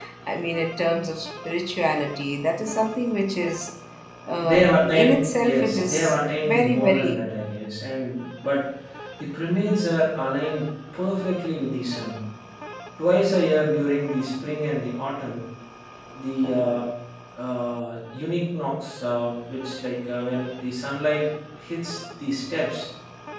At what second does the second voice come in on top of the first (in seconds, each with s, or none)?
4.4 s